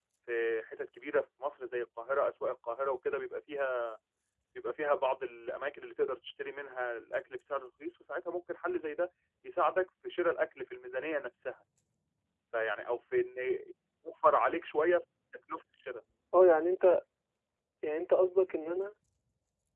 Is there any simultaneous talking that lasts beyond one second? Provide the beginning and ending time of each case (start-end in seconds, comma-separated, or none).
none